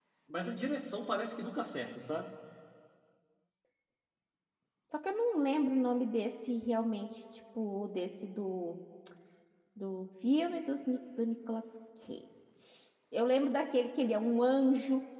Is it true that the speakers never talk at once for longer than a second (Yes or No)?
Yes